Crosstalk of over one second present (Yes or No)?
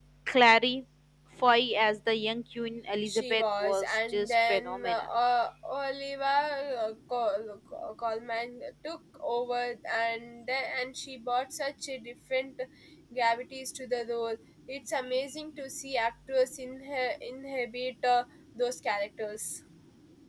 Yes